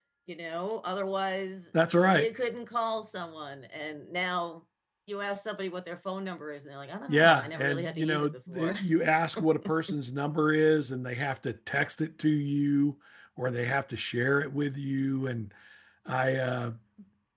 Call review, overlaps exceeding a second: present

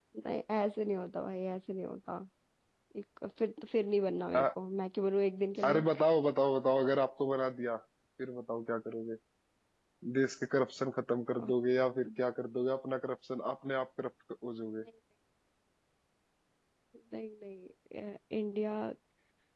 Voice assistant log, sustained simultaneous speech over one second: none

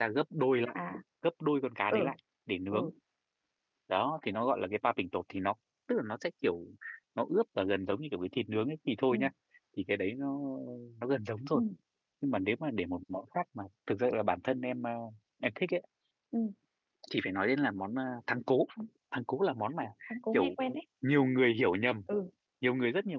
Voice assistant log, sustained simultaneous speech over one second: none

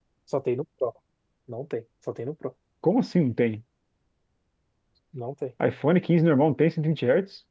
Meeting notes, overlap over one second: none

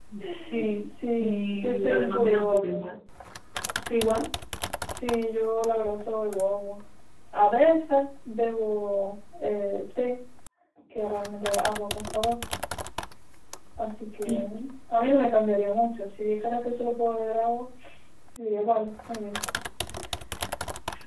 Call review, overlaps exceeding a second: present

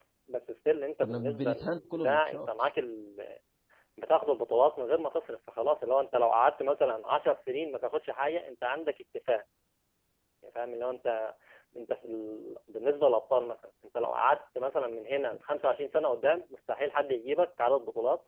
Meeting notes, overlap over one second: present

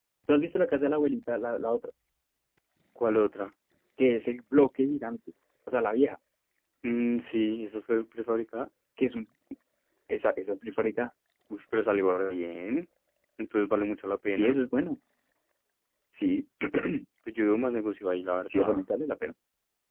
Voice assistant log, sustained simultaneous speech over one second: none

